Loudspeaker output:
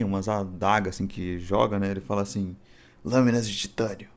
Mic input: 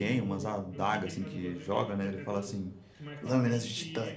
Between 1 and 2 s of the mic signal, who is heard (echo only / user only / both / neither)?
both